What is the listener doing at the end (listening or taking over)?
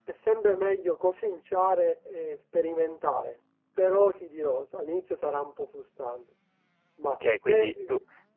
taking over